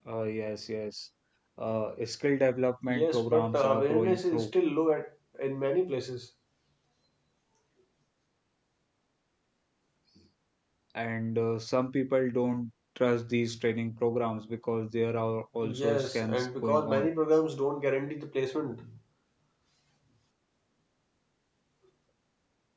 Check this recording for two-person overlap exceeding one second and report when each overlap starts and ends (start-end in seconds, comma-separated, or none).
2.9-4.5, 15.8-17.1